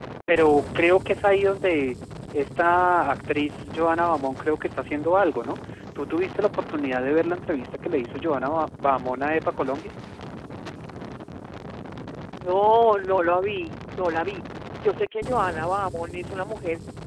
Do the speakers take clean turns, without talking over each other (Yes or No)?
Yes